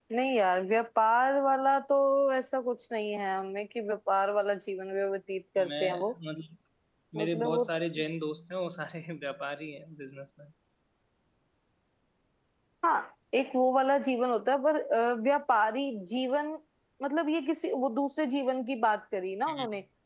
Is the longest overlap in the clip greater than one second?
No

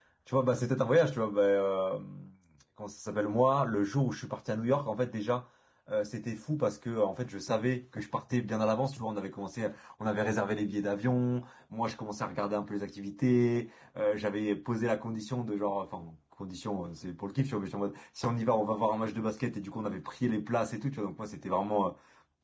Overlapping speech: No

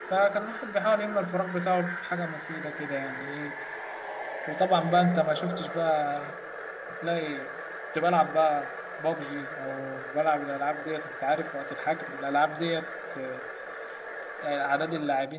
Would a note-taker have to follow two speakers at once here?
No

